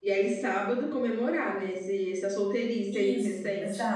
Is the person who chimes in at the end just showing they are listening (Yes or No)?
No